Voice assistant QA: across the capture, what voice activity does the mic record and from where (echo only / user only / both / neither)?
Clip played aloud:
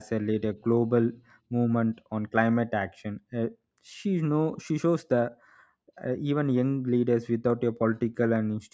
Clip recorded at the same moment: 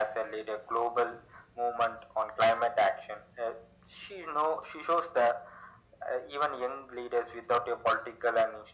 echo only